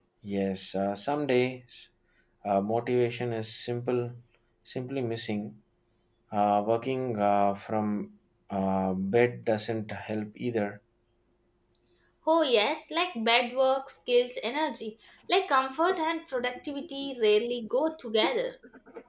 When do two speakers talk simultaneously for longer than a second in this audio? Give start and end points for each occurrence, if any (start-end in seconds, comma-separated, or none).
none